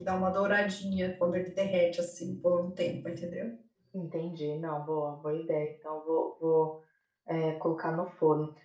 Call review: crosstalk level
none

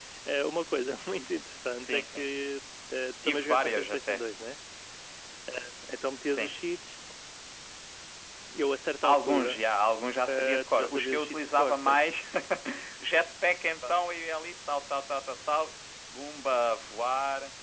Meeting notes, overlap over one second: present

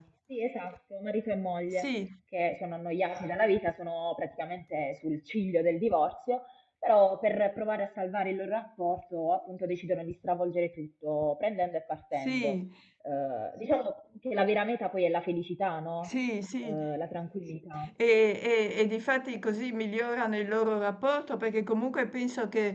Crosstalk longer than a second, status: none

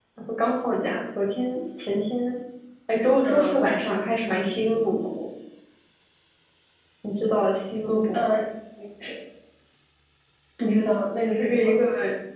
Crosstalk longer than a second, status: none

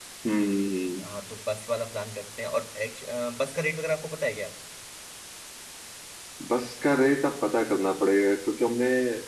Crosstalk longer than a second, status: none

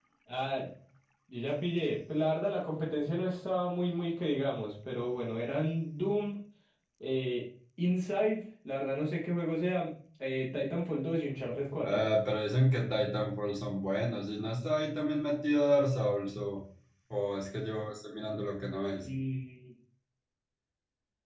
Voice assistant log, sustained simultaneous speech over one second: none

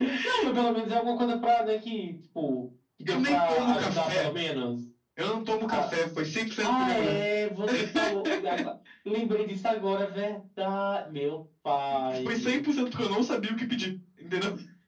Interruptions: present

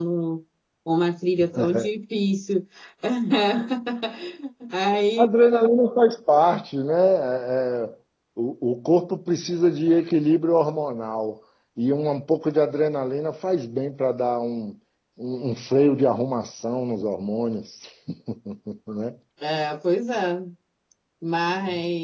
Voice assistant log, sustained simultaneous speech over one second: none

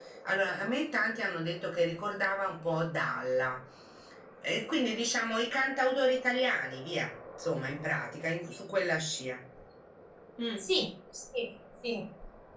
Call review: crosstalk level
none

